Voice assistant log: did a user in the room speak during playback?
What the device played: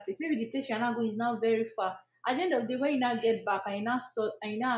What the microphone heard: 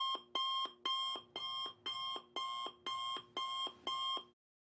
No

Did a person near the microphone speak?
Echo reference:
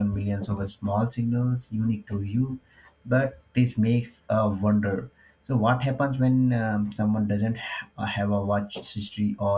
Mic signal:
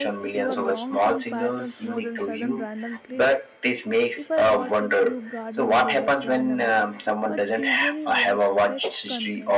Yes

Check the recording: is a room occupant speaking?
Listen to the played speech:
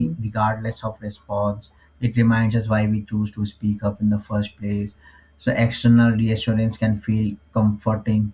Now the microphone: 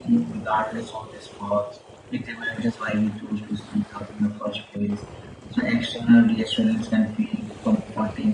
No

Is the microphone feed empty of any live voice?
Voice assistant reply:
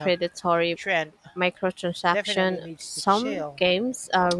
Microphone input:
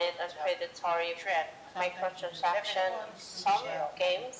No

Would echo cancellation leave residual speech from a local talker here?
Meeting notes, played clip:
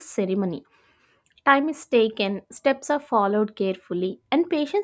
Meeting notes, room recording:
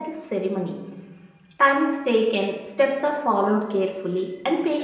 No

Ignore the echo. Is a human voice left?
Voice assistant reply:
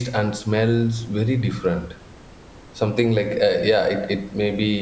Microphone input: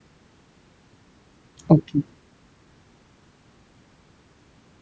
Yes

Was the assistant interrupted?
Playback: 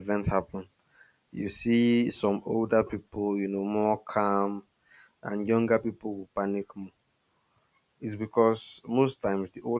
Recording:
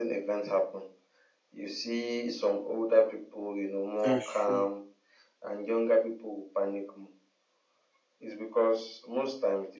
Yes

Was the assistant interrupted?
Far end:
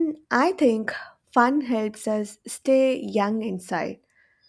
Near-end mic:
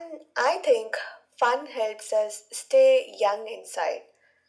No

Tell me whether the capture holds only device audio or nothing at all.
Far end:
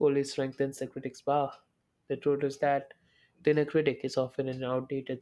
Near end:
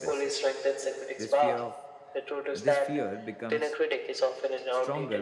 No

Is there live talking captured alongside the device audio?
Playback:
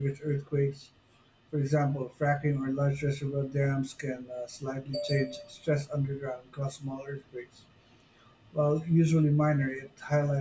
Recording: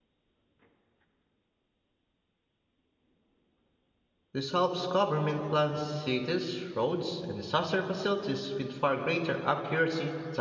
Yes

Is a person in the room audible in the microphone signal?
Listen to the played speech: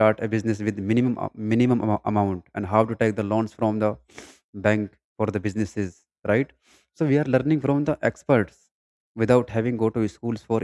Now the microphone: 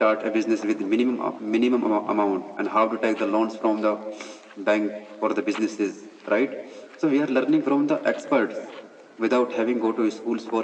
No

